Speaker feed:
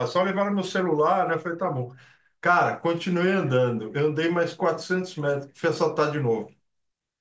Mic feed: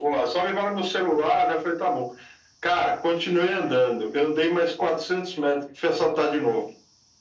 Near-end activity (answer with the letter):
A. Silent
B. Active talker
A